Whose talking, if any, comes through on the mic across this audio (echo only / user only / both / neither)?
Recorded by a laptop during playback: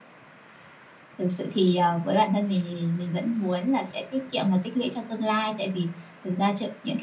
user only